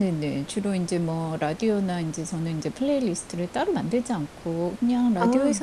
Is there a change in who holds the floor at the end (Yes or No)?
No